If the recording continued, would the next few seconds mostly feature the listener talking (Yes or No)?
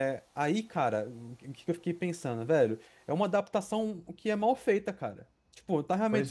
No